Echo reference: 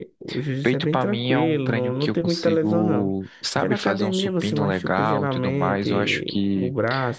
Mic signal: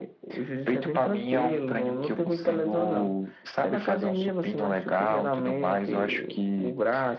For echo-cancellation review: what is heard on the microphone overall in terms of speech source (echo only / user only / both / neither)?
echo only